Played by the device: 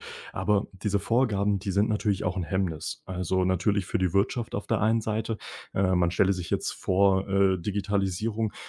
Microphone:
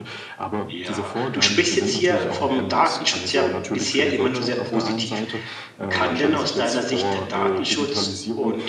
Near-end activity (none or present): present